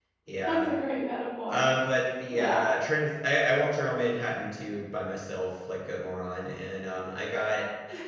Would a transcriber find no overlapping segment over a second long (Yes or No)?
Yes